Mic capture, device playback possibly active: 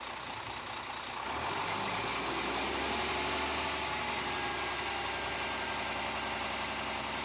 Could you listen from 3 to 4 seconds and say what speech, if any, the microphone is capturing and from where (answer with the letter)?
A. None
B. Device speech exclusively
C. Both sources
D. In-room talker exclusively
A